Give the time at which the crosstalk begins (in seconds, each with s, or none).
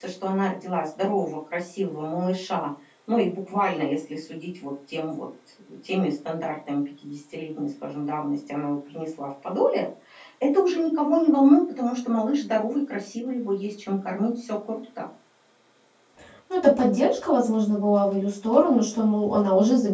none